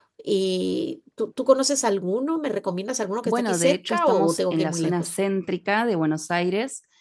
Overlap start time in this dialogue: 3.2 s

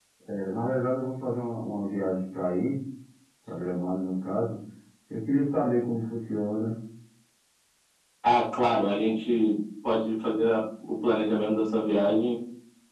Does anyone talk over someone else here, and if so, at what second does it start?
none

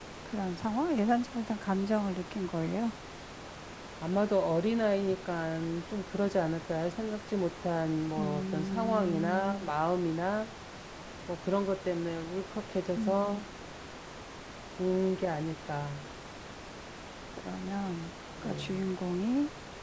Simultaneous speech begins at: 8.2 s

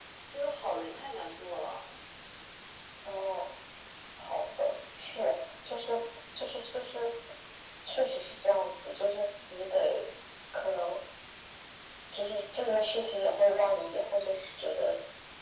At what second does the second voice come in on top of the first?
none

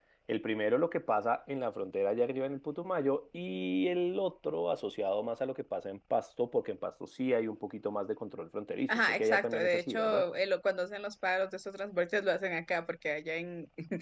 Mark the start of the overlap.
8.9 s

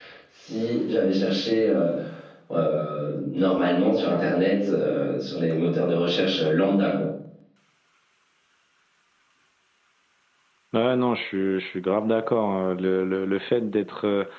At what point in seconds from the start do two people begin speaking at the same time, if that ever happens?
none

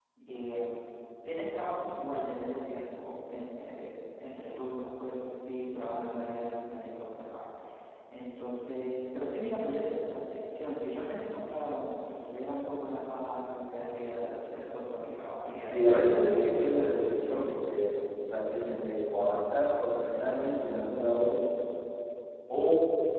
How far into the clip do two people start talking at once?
15.6 s

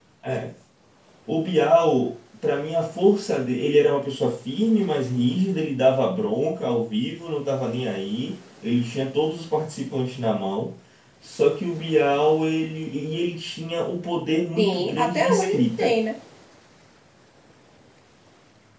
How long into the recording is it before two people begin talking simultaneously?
14.6 s

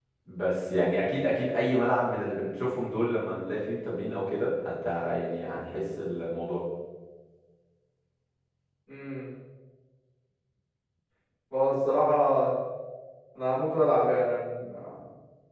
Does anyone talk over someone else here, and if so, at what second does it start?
none

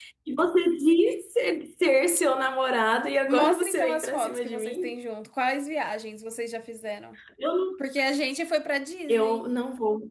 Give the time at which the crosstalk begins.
3.3 s

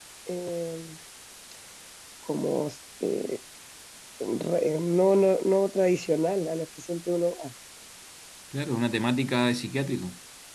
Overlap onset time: none

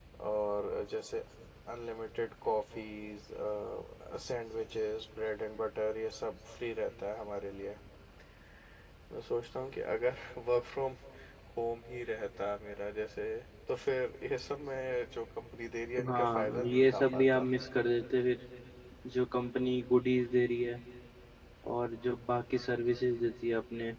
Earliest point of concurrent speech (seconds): 16.0 s

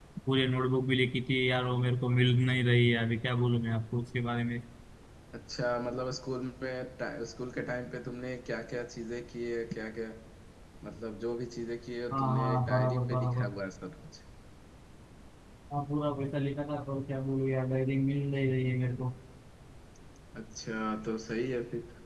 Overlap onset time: 12.1 s

